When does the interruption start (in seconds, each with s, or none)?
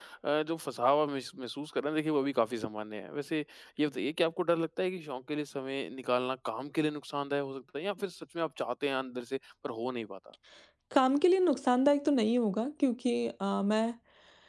none